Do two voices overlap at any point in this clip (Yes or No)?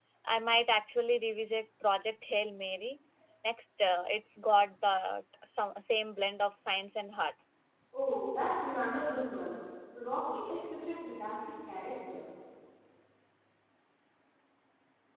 No